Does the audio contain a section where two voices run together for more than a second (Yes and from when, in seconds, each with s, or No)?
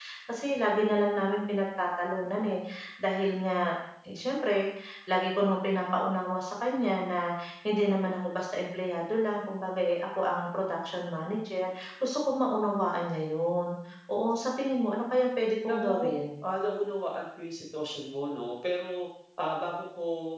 No